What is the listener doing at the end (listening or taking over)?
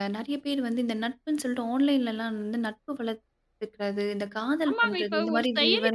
taking over